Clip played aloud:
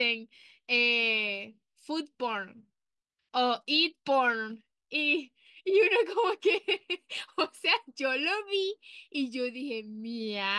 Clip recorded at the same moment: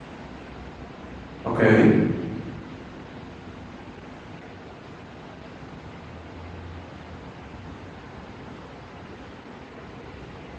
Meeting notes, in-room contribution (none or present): present